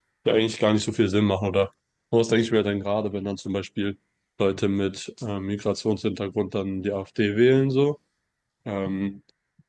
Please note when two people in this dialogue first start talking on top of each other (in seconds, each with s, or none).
none